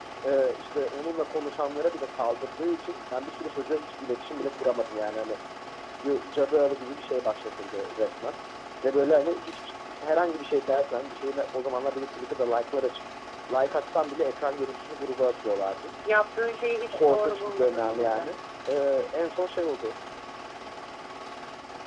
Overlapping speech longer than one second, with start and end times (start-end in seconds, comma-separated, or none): 16.9-18.3